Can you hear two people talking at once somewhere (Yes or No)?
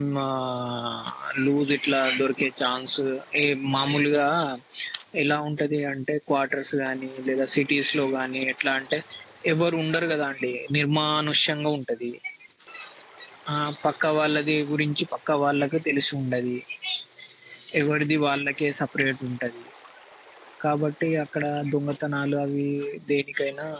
No